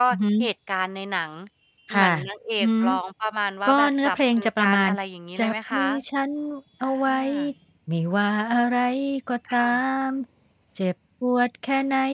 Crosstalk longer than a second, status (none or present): present